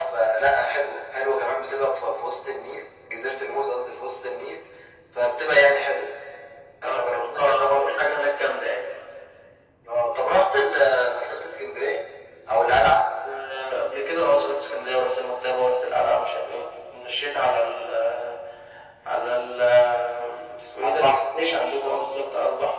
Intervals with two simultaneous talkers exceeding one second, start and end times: 6.8-8.1

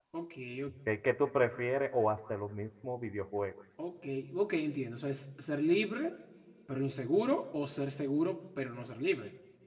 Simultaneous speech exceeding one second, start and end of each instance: none

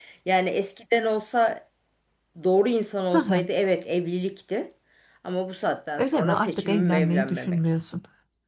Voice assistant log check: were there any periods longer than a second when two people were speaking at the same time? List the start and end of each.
6.0-7.6

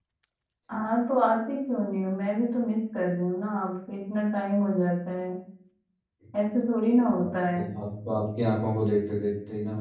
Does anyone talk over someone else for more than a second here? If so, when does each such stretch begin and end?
none

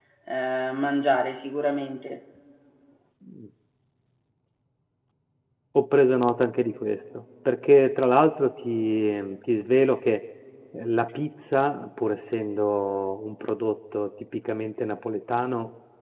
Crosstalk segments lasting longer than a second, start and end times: none

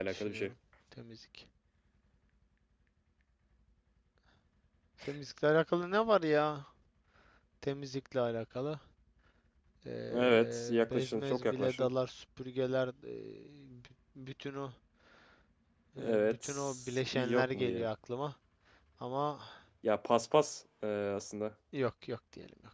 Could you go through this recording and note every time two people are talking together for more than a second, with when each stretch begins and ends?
10.1-11.9, 16.0-17.9

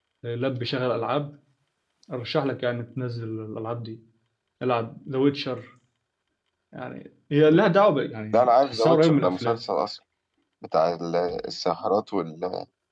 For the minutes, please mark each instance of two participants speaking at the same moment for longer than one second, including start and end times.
8.3-9.6

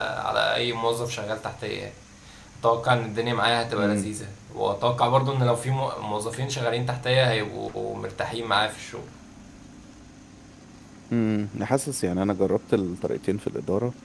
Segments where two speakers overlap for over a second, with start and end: none

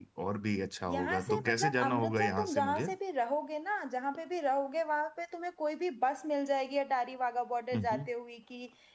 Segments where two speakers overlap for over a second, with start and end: 0.9-2.9

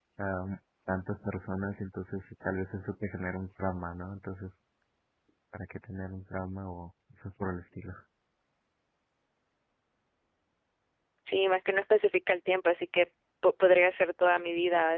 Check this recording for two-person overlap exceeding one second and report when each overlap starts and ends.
none

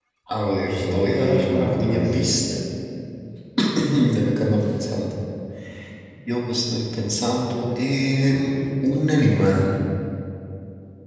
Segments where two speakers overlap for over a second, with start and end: 0.8-2.2

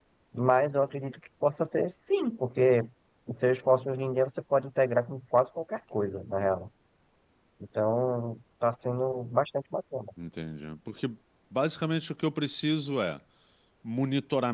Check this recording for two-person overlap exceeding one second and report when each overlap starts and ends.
none

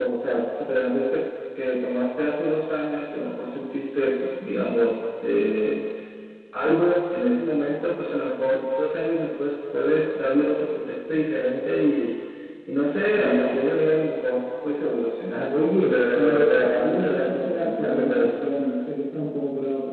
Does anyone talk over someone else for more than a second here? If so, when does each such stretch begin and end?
15.9-18.4

